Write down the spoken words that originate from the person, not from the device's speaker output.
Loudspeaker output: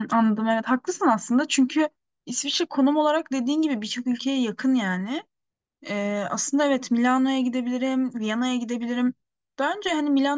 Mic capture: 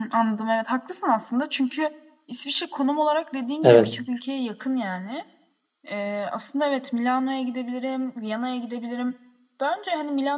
evet,

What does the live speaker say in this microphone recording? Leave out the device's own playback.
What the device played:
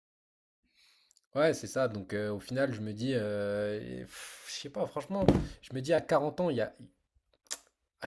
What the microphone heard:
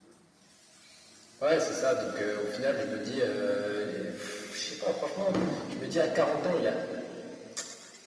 none

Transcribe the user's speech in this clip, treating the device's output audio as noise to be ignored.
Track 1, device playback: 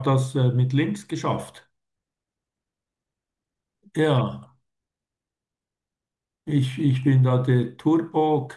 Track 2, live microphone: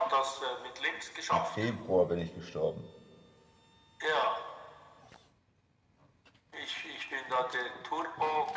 im Februar bin ich gestorben.

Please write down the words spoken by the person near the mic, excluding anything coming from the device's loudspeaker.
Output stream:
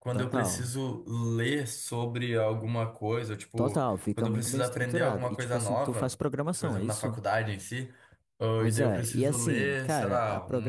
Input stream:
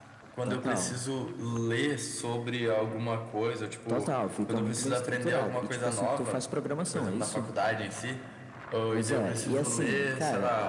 none

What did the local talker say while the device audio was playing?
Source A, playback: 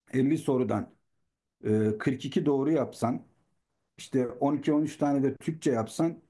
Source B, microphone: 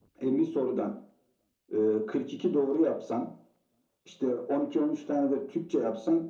none

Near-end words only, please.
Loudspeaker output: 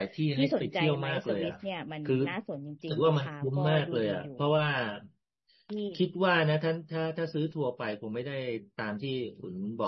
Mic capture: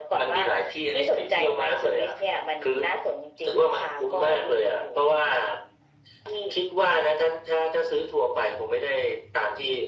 none

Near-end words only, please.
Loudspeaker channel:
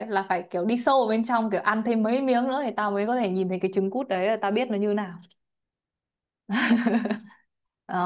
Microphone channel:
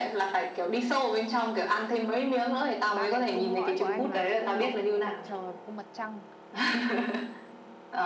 ba cái cung lõi của anh là cung mọc cung mặt trời và cung mặt trăng

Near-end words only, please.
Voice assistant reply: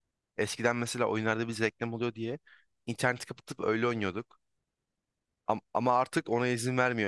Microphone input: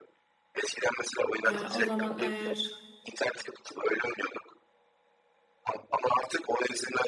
E, o zaman eğer

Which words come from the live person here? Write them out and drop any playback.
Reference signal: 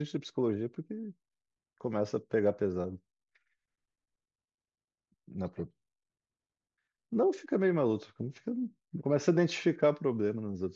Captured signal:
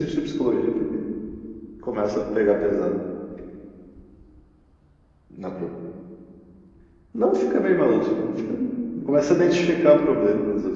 none

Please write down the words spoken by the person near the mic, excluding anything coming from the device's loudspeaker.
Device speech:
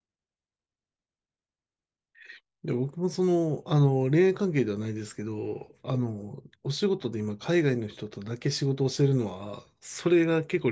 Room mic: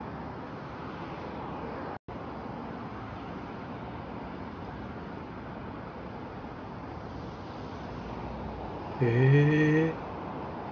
へ

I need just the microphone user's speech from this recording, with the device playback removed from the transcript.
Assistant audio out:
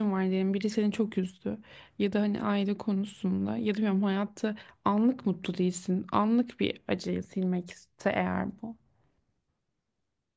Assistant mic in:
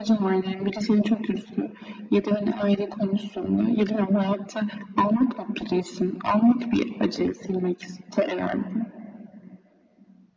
none

